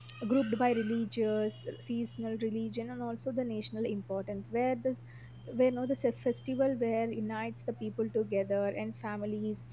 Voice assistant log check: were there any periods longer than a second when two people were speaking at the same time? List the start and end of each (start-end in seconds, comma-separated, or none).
none